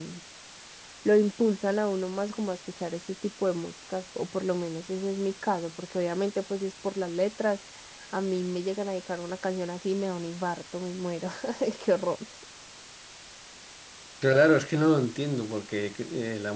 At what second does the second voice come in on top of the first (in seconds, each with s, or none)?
none